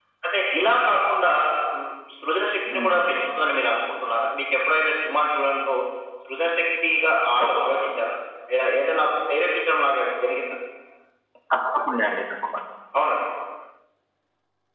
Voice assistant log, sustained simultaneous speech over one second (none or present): none